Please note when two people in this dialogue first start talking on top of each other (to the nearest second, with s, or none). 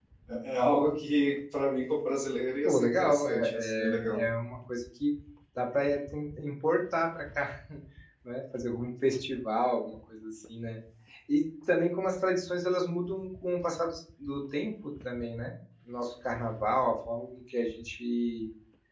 3 s